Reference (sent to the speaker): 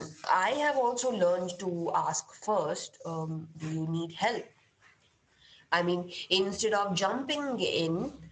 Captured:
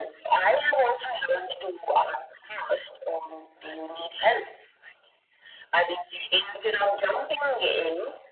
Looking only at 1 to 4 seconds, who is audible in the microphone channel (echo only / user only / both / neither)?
echo only